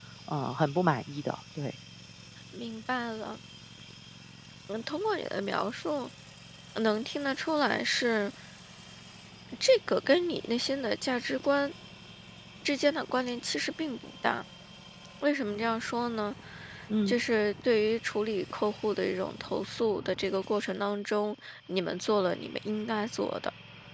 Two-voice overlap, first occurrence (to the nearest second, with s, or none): none